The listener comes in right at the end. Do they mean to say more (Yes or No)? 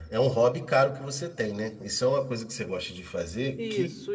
Yes